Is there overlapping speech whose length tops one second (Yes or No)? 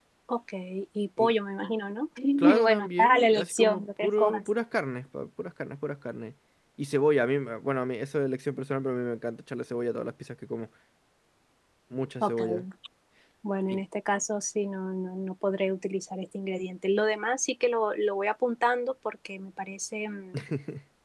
Yes